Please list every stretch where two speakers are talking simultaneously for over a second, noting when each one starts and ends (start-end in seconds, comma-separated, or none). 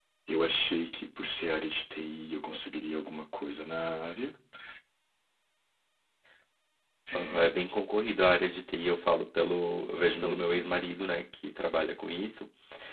none